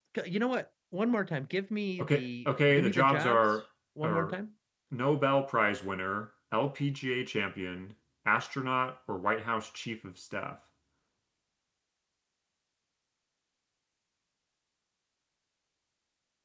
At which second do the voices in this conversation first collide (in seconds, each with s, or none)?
2.0 s